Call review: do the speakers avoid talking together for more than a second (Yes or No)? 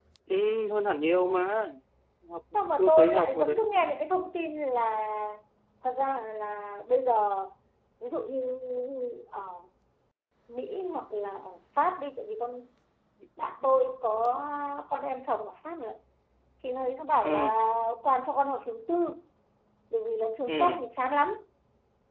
No